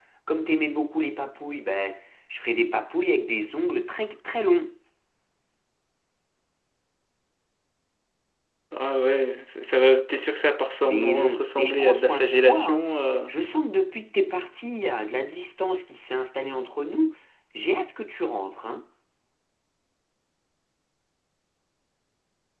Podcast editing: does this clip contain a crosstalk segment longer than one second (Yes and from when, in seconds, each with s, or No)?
Yes, from 10.8 s